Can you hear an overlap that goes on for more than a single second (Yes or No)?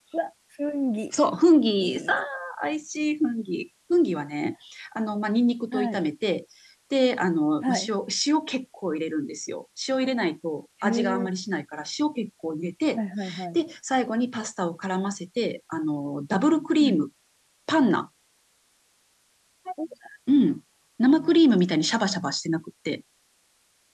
No